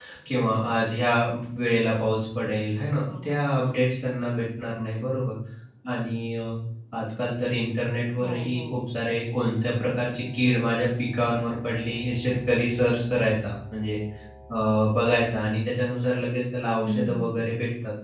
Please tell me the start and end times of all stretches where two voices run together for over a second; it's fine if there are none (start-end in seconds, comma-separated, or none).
none